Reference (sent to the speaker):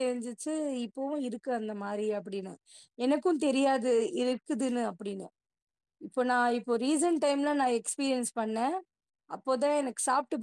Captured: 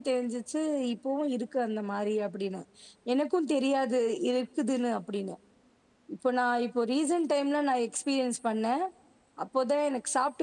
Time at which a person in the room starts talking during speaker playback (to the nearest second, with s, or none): none